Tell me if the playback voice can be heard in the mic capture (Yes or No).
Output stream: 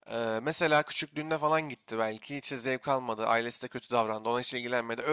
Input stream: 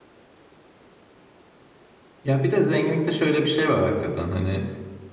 No